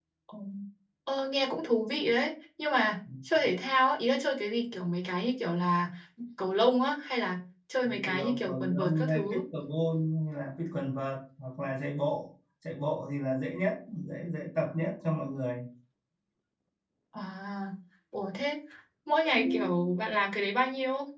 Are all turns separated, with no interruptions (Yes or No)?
No